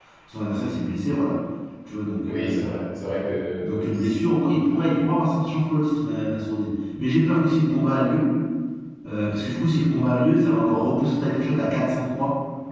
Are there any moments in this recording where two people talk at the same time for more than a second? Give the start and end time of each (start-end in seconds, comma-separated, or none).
none